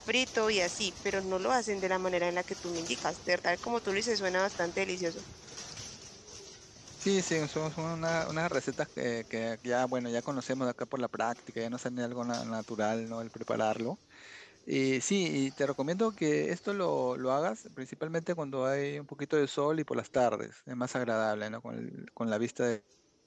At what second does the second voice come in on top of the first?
none

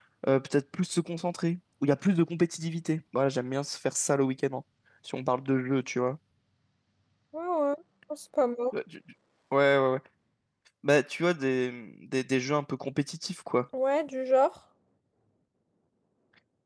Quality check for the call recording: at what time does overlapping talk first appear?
none

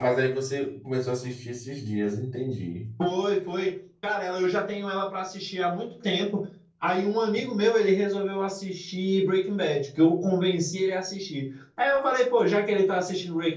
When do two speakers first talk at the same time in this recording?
none

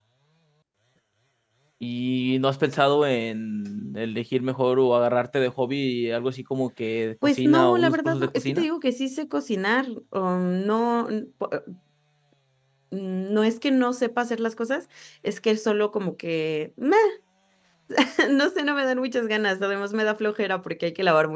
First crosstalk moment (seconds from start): 7.2 s

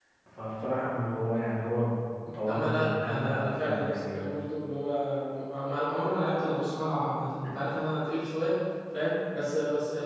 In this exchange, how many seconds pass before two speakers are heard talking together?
2.5 s

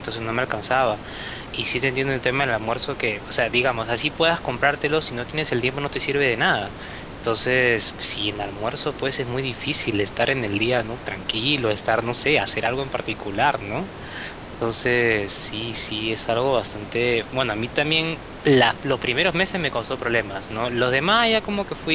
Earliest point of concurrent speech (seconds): none

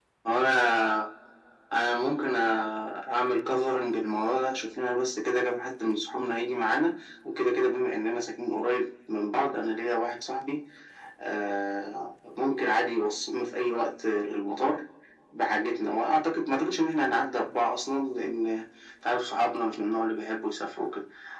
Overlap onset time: none

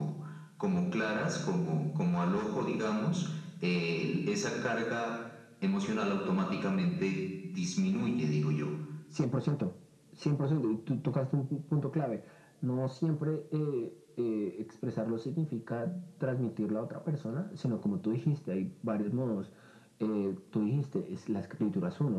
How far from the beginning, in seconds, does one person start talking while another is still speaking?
none

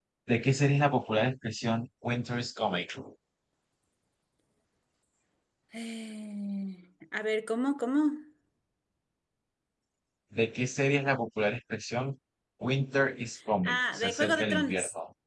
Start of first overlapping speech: 13.6 s

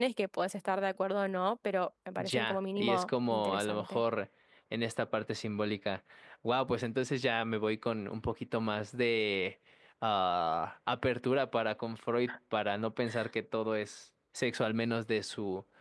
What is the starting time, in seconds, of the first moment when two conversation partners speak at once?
2.2 s

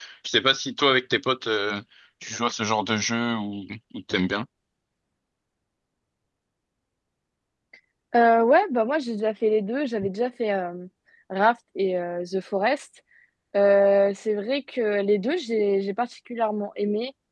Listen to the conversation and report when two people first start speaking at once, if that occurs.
none

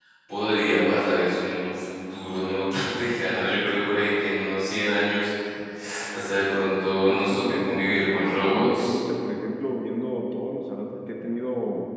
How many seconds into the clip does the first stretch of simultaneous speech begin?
7.1 s

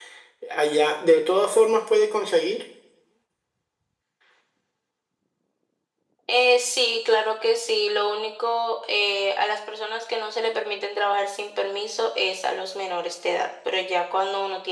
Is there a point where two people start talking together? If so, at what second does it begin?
none

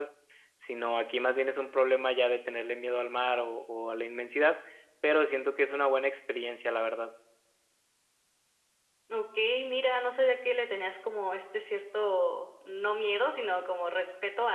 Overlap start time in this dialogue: none

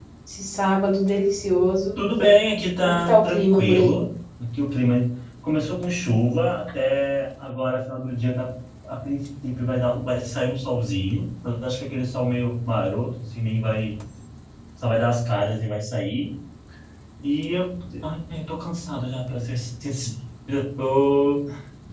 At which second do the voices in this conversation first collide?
2.8 s

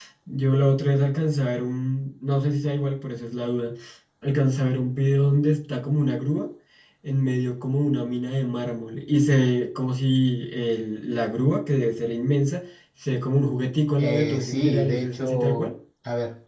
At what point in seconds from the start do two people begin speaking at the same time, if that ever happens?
14.0 s

